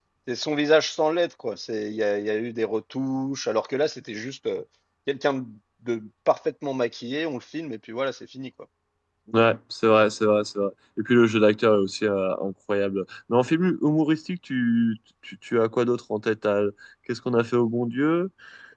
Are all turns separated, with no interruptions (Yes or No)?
Yes